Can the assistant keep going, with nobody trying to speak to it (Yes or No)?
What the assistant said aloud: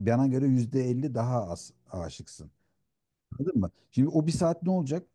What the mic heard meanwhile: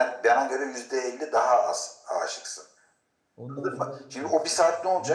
No